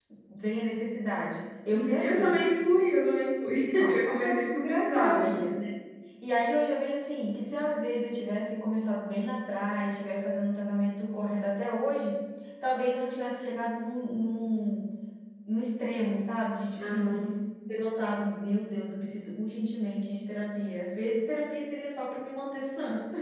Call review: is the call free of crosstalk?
No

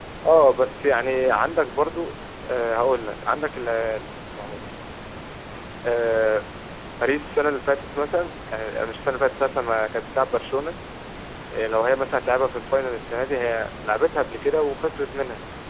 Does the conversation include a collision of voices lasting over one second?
No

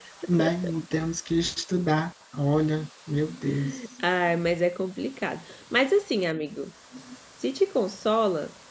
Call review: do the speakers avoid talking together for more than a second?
Yes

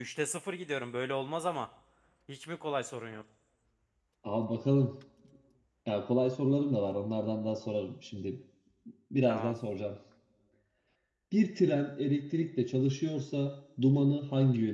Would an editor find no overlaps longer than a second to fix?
Yes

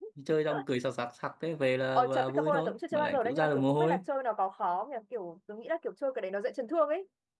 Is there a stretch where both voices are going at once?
Yes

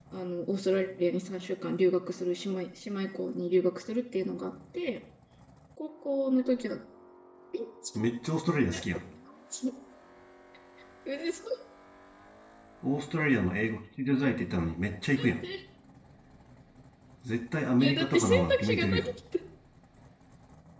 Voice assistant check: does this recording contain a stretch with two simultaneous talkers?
Yes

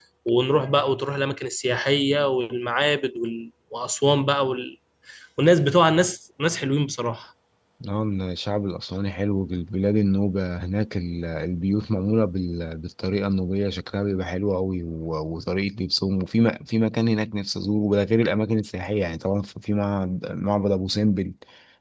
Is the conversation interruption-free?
Yes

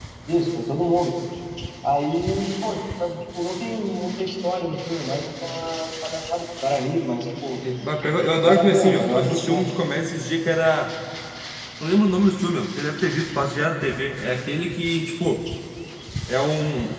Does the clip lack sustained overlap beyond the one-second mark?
No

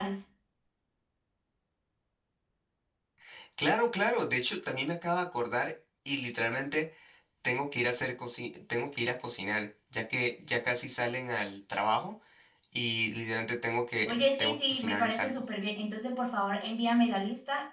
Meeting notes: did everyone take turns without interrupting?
No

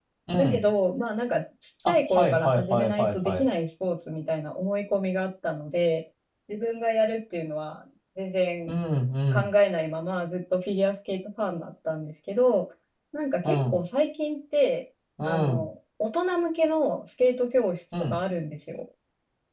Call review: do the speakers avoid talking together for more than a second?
No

